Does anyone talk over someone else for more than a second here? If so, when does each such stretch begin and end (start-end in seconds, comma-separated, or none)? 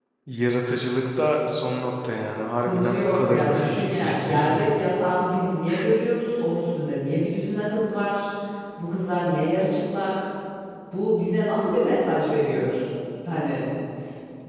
2.6-4.7